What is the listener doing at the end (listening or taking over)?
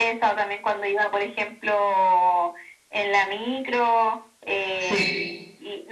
listening